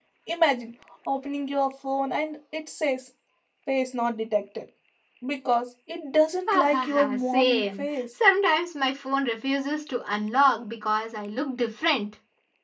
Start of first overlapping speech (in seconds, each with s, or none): 6.5 s